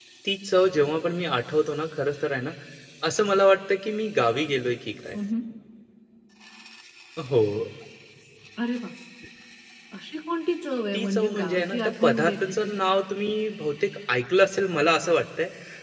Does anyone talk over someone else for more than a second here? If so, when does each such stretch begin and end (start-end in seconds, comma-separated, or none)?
10.9-12.8